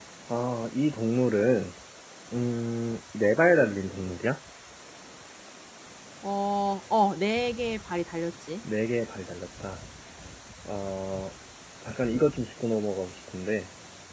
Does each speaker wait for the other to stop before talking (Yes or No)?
Yes